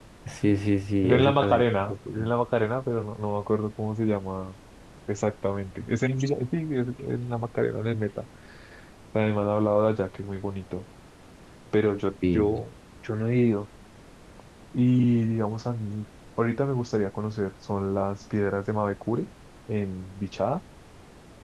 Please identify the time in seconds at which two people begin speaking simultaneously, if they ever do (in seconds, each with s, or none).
1.0 s